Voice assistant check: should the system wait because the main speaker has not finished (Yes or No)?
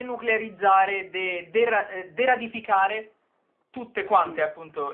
No